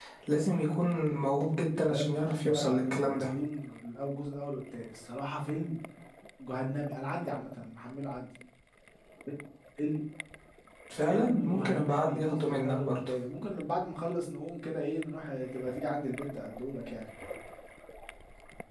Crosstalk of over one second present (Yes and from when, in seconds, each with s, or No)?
Yes, from 1.8 s